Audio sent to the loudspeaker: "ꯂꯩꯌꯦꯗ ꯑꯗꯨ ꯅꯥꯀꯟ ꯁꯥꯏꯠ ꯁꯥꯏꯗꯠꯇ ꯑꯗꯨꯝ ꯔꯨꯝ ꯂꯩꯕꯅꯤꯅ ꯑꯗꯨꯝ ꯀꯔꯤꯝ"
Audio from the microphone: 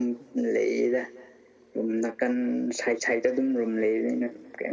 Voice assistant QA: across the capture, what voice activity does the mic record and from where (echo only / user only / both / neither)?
echo only